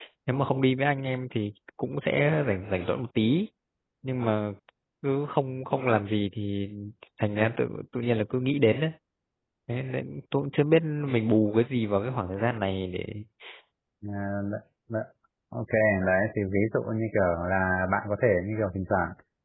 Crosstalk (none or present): none